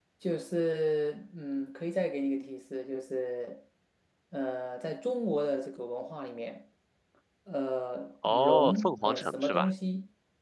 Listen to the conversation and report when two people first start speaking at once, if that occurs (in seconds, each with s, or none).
8.2 s